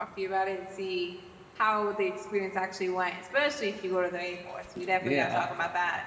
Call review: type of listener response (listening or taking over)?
taking over